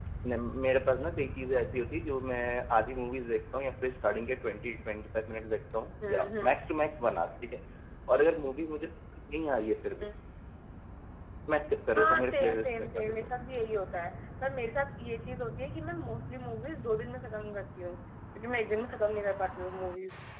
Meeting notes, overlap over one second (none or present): present